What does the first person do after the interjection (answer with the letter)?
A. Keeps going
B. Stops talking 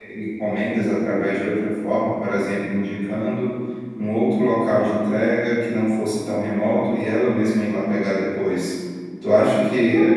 A